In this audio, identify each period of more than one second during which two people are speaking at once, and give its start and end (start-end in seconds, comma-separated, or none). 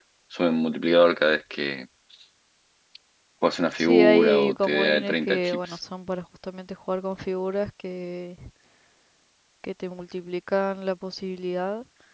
3.8-5.8